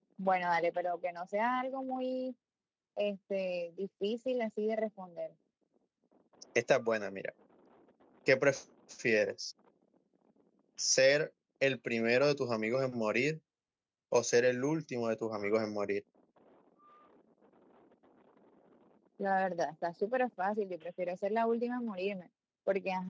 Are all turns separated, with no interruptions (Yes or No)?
Yes